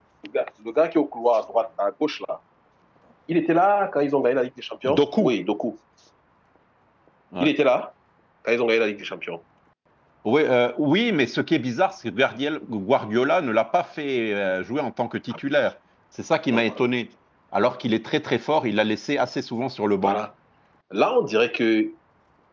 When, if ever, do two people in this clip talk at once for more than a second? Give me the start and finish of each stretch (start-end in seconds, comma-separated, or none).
none